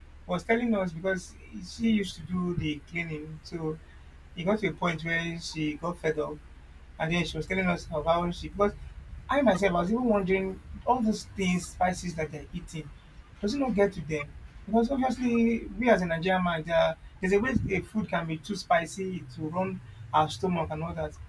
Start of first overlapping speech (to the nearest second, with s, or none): none